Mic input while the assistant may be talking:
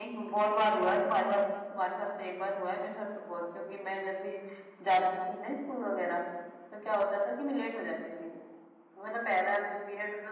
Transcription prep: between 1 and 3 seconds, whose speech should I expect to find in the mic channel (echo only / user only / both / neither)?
user only